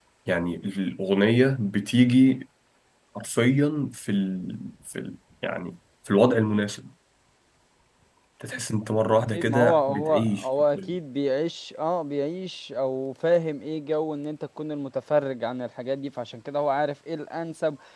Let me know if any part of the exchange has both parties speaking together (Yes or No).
Yes